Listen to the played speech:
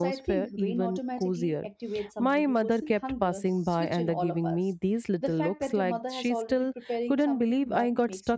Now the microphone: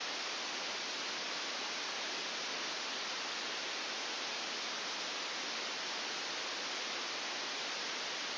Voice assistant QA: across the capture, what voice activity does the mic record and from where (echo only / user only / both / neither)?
neither